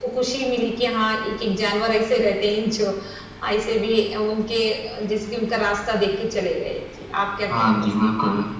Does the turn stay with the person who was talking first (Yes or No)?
No